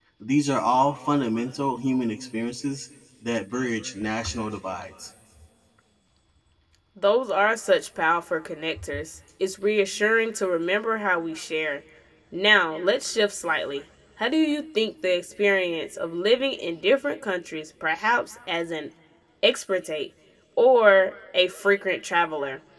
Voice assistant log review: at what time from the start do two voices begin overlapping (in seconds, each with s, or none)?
none